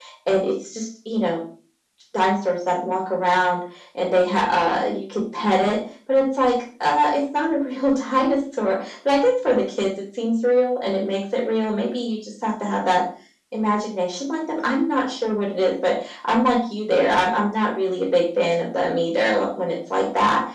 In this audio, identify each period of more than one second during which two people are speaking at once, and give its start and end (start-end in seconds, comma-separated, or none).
none